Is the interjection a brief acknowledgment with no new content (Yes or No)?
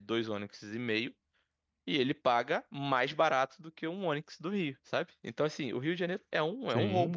No